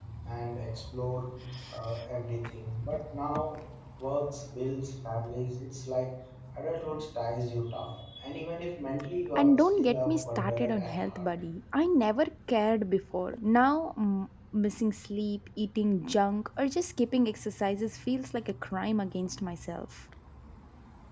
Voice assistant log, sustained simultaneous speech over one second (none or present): present